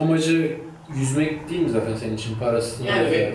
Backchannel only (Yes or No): No